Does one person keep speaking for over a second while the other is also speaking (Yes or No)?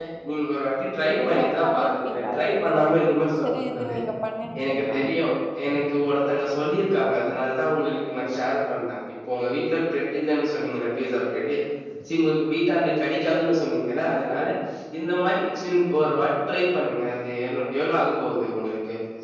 Yes